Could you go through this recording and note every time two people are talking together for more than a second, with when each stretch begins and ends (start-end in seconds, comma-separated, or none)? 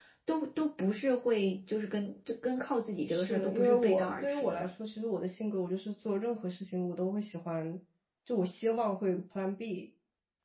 3.1-4.7